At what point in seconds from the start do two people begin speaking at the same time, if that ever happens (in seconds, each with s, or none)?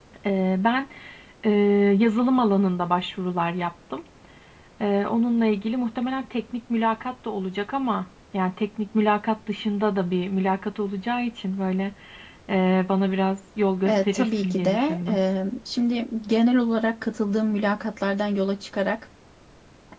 13.9 s